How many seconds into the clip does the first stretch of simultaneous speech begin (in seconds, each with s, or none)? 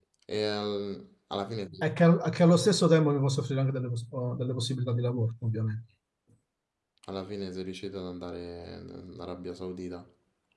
none